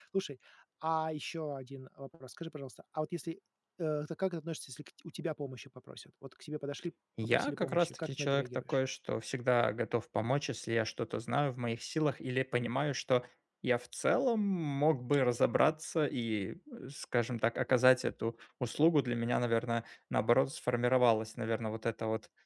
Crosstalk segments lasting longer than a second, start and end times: 7.2-8.8

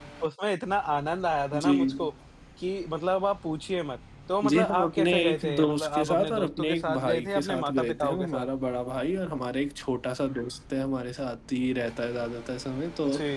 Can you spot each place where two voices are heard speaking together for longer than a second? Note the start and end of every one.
4.4-8.5

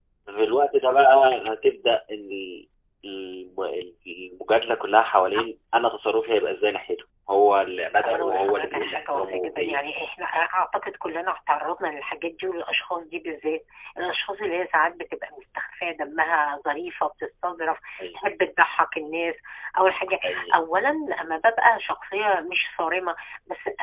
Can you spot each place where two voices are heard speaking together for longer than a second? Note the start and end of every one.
8.0-9.8

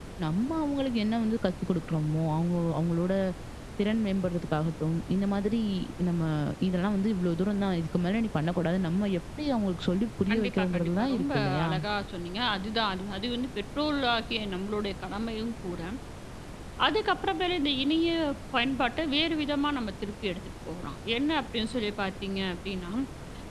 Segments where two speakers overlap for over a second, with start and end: 10.3-11.7

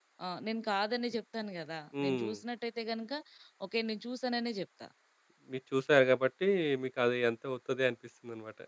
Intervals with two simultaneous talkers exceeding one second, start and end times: none

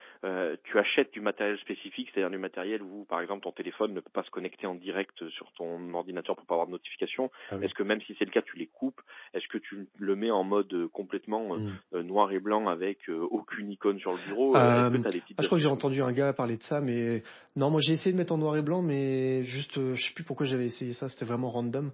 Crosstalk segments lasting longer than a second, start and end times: 14.5-15.9

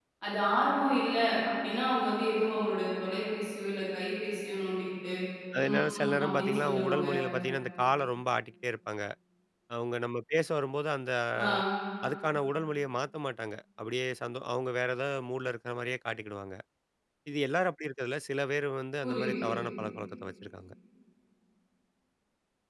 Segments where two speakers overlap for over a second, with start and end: 5.7-7.1

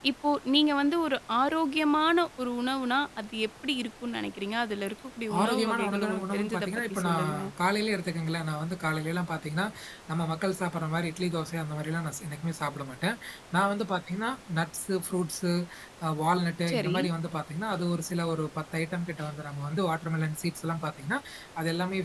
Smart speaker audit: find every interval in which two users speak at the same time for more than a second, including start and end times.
5.4-7.2

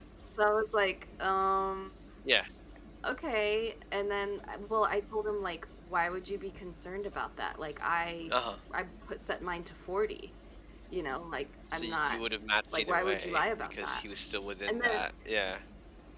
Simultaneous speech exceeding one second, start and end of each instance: 12.7-14.0

